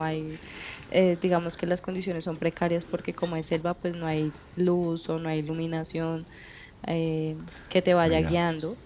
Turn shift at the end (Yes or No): No